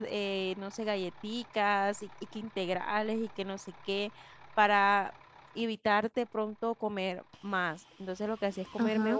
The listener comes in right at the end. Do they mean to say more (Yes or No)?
No